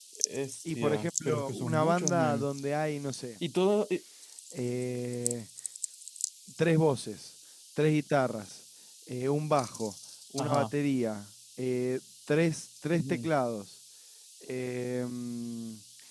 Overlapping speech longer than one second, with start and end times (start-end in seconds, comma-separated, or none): 0.8-2.5